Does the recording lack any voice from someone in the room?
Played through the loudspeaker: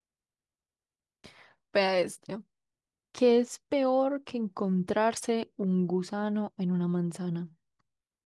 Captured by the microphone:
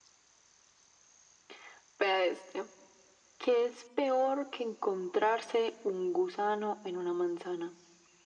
Yes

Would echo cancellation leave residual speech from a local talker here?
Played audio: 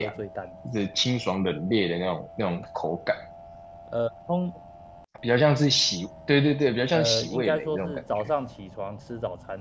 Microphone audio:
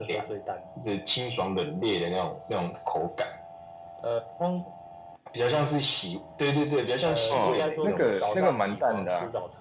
Yes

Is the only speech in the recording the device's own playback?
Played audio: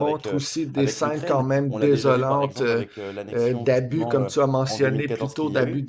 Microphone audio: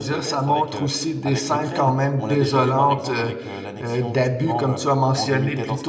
Yes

